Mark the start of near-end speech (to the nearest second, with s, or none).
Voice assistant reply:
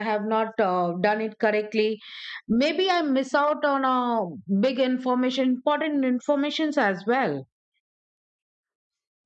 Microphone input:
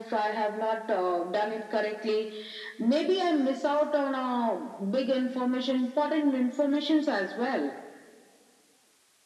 none